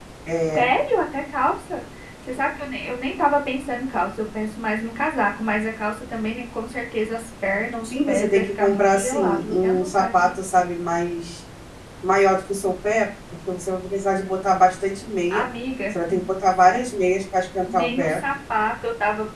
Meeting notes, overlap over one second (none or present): present